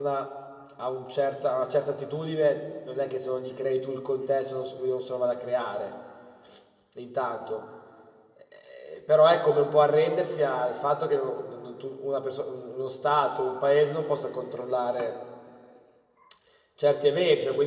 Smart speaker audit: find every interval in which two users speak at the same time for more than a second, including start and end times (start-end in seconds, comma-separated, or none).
none